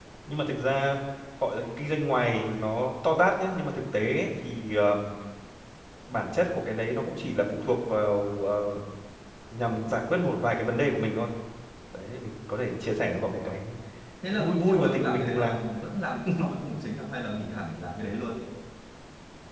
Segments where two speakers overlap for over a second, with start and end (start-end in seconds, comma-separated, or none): 14.3-15.6